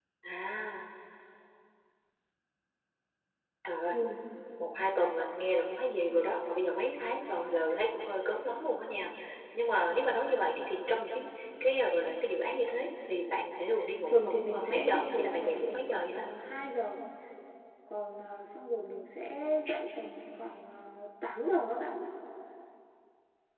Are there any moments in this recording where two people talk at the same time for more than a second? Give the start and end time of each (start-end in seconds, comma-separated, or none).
14.1-16.3